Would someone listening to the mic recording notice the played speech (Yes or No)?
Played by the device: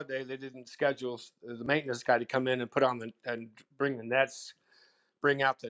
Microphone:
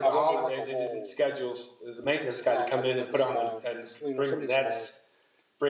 Yes